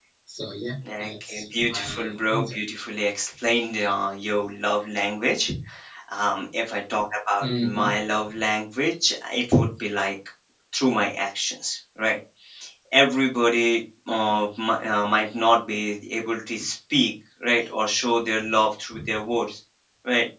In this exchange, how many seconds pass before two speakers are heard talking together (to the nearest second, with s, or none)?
1 s